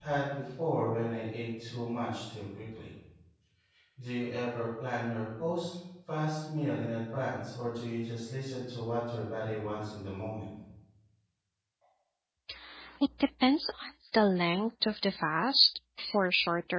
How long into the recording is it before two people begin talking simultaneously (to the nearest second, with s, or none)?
none